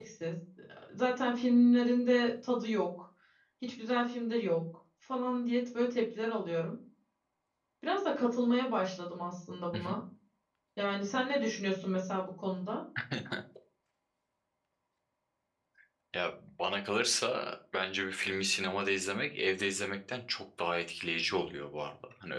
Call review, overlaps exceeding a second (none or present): none